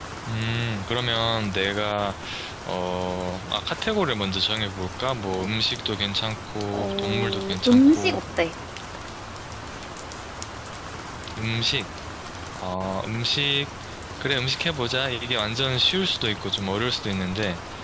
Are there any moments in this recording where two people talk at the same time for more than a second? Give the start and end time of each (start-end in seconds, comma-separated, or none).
6.7-8.2